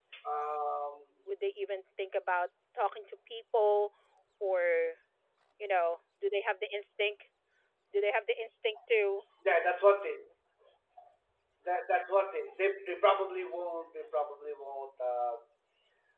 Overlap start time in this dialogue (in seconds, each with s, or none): none